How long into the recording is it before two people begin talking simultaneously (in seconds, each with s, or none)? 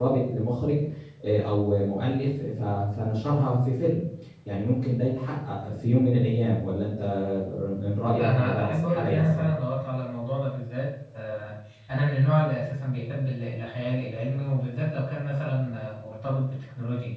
8.2 s